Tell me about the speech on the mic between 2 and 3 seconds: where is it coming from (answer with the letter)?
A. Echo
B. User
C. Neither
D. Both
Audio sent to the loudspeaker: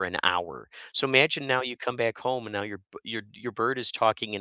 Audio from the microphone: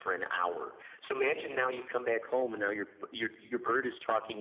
A